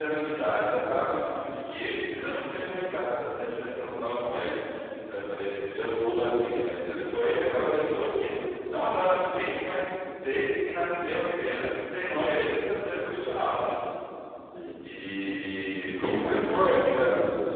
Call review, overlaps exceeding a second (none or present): present